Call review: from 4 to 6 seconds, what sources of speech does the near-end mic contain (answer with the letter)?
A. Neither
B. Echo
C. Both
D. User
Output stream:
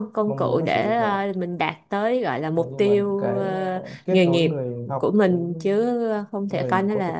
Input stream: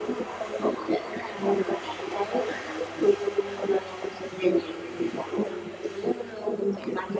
B